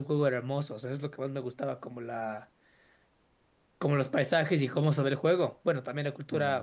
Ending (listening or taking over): listening